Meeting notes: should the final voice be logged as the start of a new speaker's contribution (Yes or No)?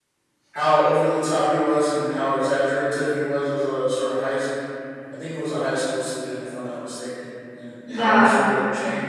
No